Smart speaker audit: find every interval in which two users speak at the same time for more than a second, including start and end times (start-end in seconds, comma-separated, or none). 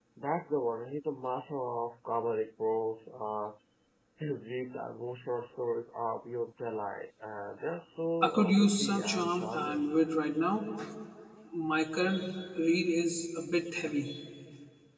8.2-9.9